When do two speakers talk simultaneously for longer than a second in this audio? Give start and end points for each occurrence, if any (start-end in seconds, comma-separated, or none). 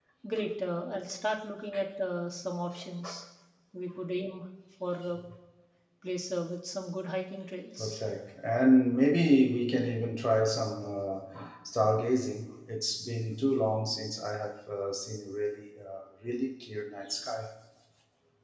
none